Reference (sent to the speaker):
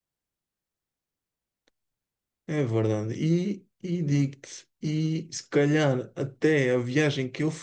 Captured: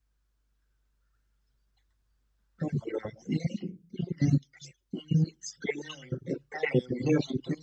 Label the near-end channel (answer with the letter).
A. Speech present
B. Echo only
B